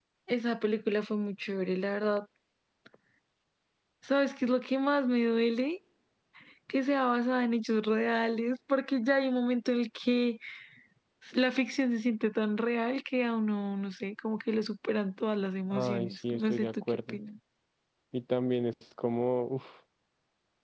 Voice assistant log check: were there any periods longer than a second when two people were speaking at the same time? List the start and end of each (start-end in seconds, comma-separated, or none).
15.7-17.2